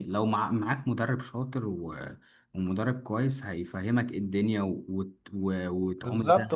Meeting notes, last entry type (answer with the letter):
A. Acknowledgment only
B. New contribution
B